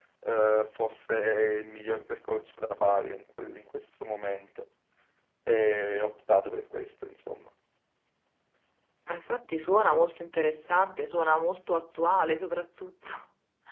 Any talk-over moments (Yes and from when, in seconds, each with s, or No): No